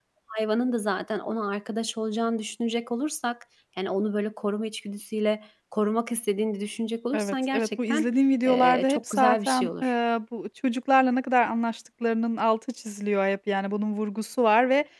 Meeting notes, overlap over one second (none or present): present